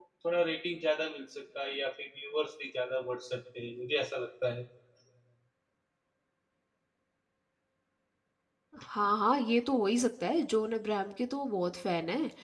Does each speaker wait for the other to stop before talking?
Yes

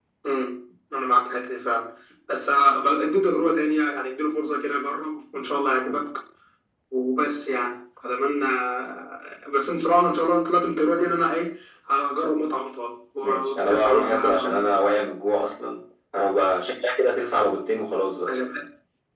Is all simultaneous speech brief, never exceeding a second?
No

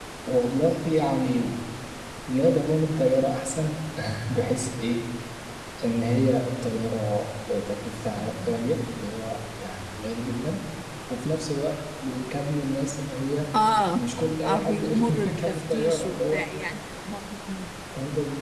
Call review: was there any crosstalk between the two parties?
Yes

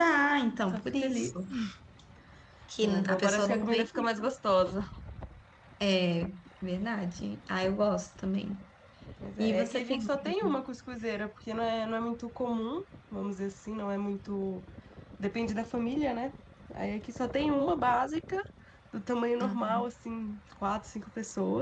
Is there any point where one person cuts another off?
Yes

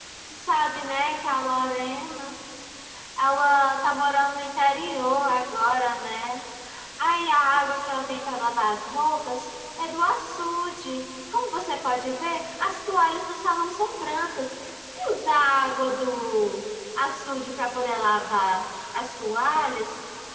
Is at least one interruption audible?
No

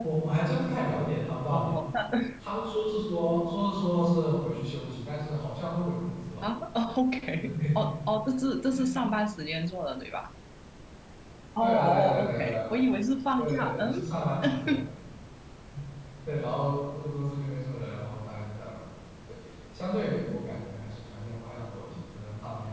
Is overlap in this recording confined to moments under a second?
No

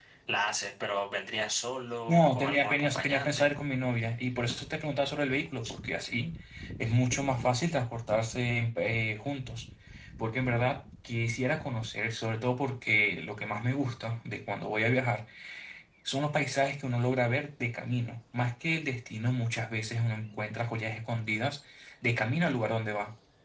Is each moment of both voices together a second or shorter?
No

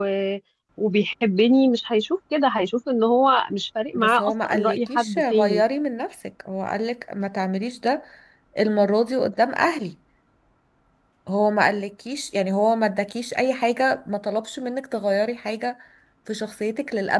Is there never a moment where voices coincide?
No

